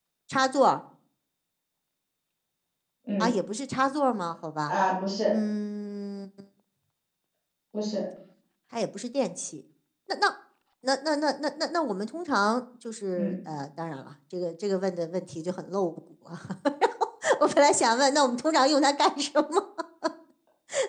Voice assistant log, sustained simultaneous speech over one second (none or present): none